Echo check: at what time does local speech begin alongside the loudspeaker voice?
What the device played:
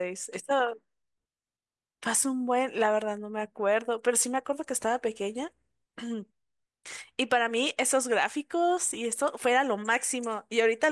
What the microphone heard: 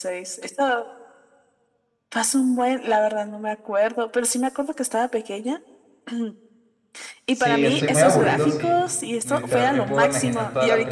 7.3 s

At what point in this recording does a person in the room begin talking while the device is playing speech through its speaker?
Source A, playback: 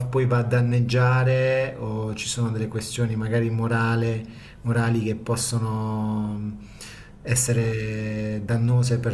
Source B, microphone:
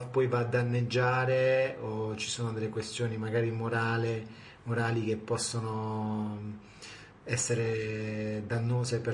none

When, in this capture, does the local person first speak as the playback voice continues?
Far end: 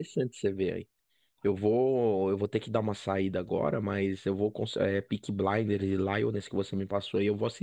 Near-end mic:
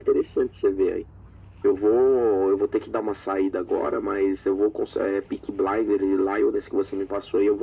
none

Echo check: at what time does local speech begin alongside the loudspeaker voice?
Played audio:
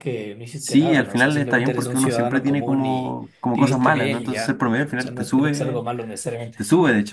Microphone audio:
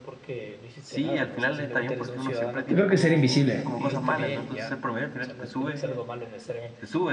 2.6 s

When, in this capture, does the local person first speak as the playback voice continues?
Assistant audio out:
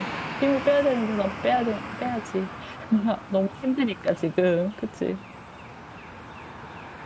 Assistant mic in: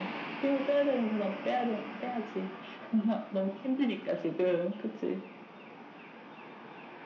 none

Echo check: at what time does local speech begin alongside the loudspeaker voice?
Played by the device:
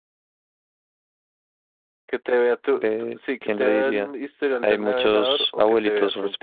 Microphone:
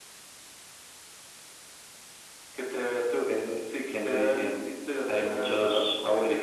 none

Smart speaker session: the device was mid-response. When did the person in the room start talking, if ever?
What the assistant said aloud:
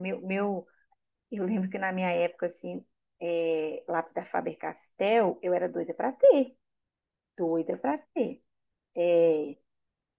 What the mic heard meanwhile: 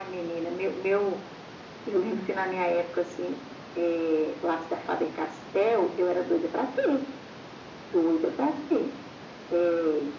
none

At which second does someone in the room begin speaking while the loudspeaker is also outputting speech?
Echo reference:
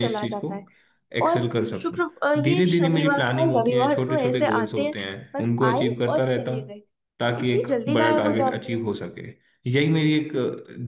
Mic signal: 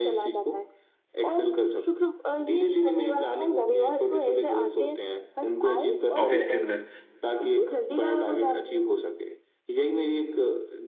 6.2 s

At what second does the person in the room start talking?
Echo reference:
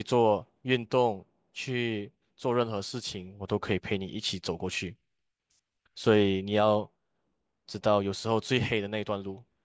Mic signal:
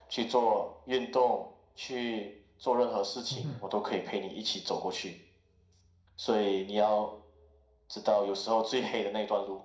3.3 s

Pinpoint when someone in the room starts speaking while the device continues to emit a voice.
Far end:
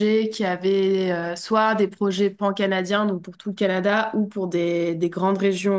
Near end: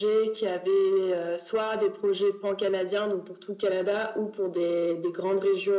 none

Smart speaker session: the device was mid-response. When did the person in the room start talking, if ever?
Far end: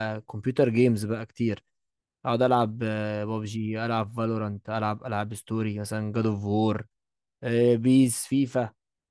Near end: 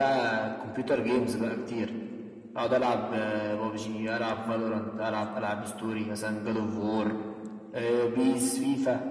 none

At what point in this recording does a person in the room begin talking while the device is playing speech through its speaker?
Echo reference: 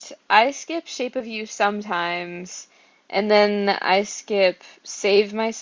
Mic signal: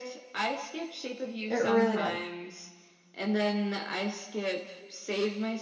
1.5 s

